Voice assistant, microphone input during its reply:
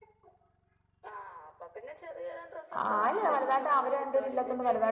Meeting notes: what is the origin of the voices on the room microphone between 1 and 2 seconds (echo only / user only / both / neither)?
echo only